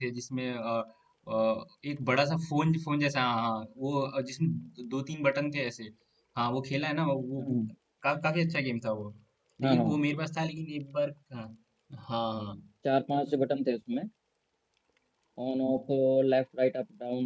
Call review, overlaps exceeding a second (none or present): none